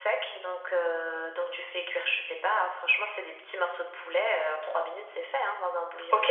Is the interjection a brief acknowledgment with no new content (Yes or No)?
No